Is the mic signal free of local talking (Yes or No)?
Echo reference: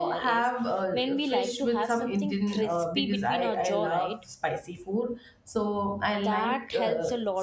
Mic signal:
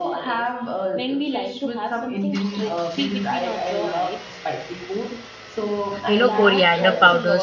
No